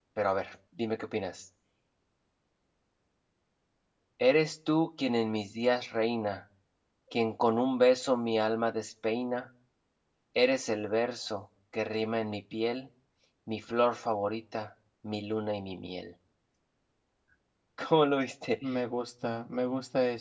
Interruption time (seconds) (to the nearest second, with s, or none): none